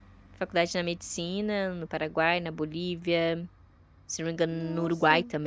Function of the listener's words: listening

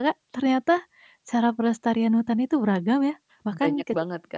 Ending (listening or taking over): taking over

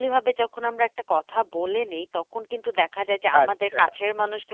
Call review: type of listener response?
listening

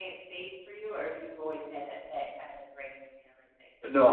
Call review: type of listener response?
taking over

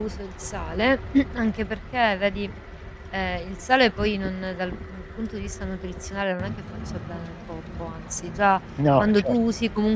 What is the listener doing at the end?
listening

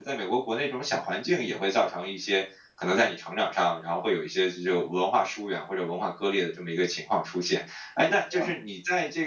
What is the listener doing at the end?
listening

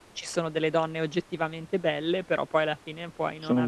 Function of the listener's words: listening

